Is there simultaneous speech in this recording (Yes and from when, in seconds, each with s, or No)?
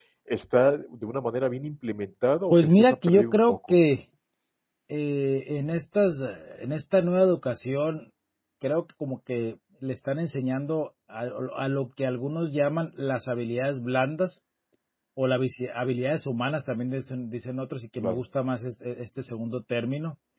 Yes, from 2.5 s